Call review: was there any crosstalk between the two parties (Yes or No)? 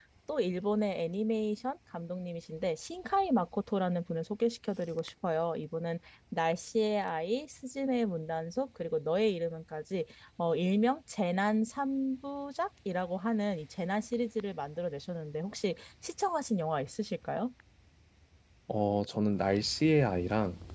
No